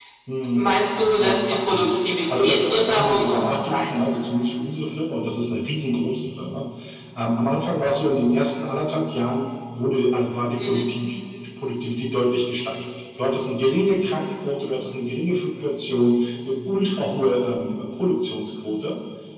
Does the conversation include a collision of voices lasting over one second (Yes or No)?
Yes